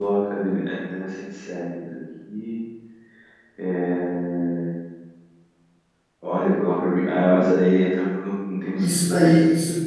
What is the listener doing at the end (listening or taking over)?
taking over